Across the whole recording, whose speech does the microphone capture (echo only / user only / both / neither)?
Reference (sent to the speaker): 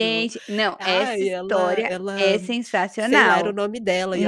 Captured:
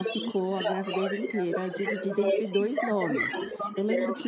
both